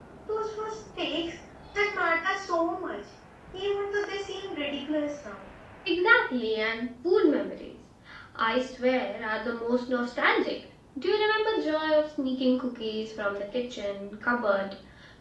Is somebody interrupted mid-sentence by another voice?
No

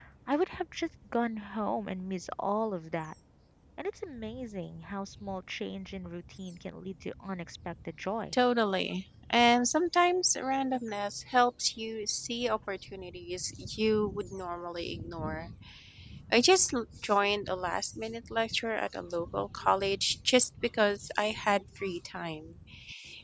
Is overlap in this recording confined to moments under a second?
Yes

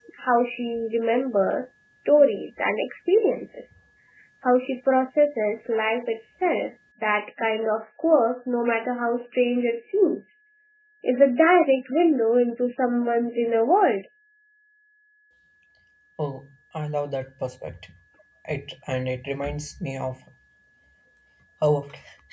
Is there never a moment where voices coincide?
Yes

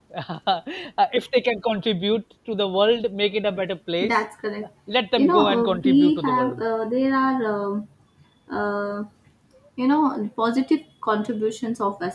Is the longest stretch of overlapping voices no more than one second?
No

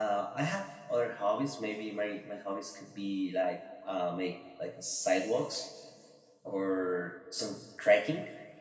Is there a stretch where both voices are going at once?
No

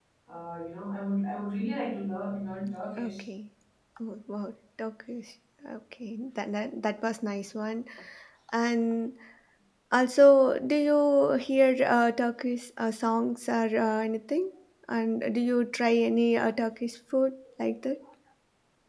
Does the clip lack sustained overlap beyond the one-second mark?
Yes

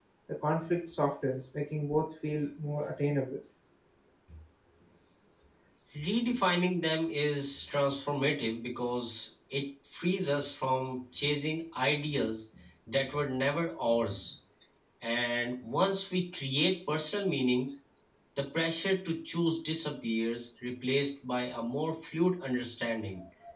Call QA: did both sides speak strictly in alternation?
Yes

